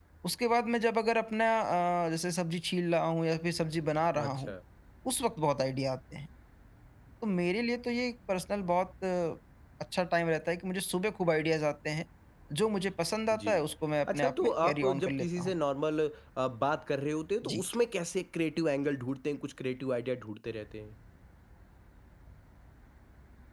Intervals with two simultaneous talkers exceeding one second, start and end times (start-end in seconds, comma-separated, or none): 14.1-15.5